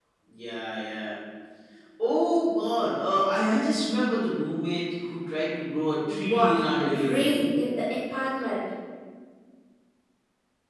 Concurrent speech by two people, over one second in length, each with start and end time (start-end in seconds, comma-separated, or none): 6.1-7.5